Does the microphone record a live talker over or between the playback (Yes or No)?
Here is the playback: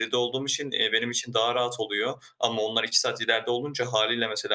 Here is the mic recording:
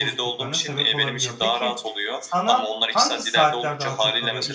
Yes